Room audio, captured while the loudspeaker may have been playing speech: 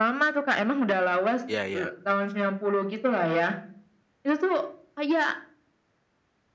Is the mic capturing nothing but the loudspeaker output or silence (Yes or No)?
No